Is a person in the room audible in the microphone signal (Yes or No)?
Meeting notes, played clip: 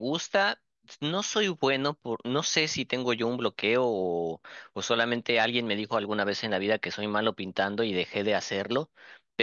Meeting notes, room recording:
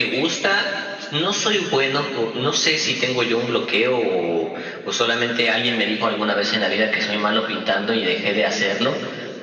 No